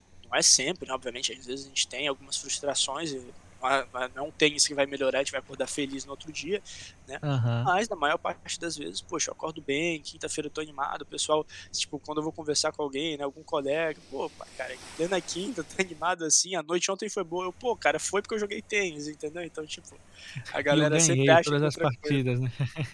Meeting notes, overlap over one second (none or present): present